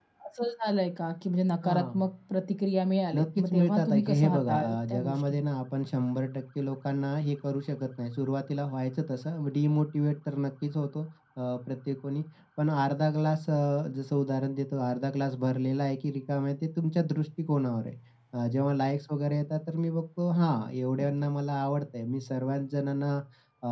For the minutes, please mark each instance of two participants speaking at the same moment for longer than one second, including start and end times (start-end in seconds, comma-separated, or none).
3.1-5.4